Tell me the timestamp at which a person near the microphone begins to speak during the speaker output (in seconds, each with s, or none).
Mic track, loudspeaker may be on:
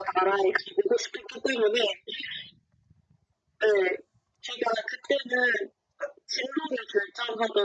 none